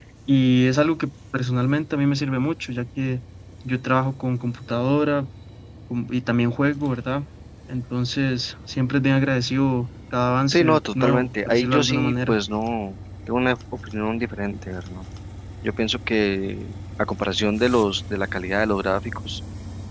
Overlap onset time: 10.5 s

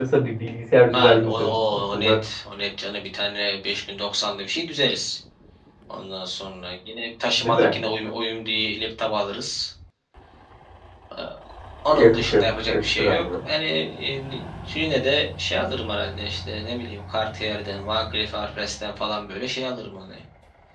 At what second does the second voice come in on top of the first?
0.9 s

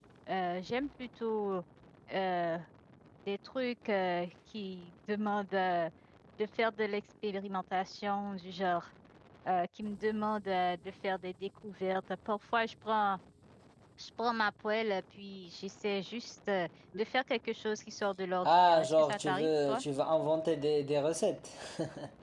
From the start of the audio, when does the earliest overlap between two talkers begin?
18.4 s

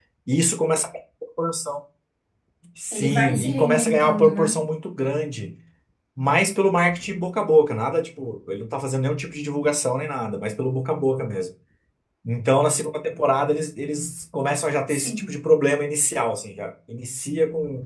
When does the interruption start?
2.9 s

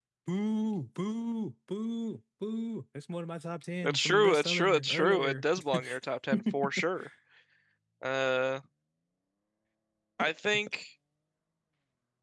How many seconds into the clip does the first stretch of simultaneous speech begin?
3.8 s

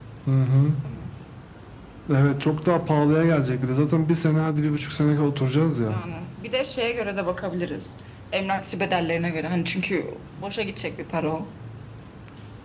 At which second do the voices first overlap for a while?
none

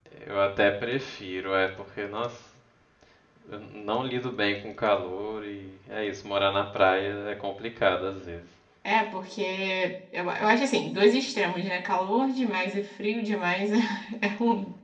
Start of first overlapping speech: none

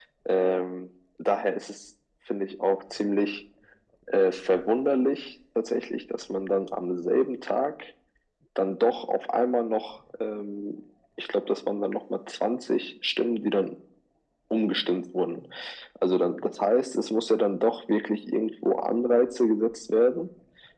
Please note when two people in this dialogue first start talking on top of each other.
none

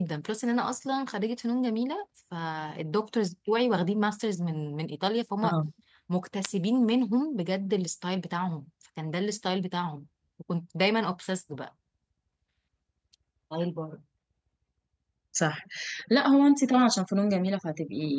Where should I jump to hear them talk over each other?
none

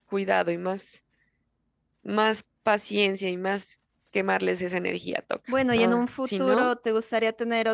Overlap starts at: 5.5 s

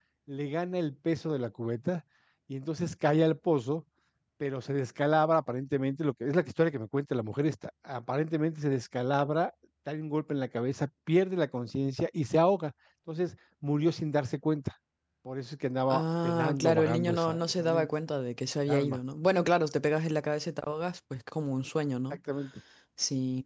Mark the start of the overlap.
15.9 s

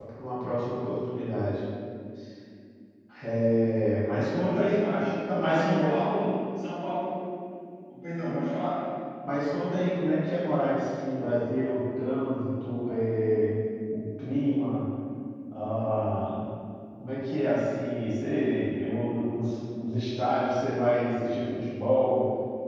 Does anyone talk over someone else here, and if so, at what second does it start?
4.0 s

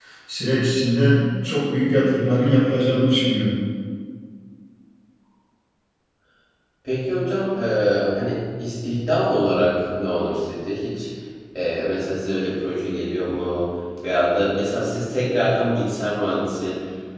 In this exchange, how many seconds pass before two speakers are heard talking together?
none

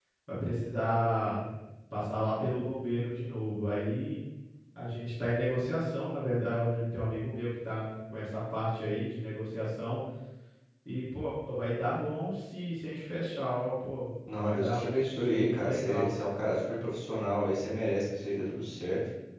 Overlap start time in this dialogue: 14.3 s

